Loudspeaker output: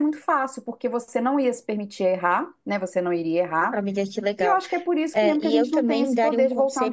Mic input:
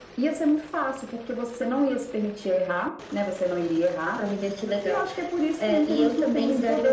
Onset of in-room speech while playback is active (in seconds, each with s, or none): none